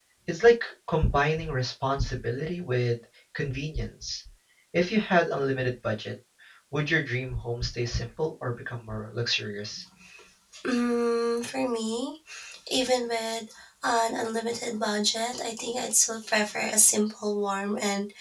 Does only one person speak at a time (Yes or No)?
Yes